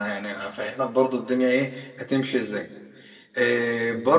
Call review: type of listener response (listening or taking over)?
listening